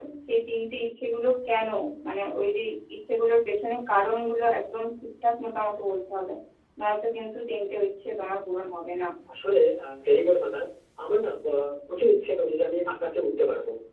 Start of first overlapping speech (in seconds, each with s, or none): none